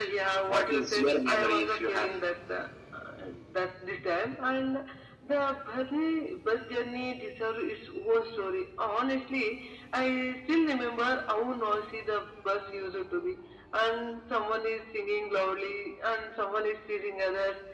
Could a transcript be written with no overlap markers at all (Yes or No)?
No